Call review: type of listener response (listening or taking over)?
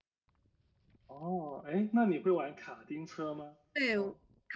taking over